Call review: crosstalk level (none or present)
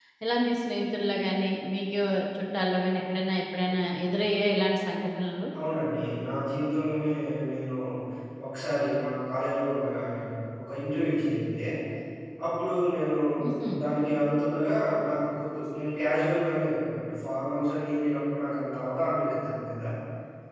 none